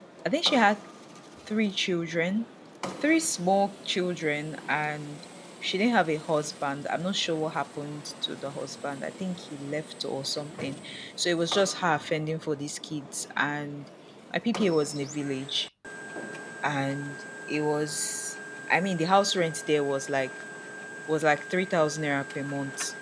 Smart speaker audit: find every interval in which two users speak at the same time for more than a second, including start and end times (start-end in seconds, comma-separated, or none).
none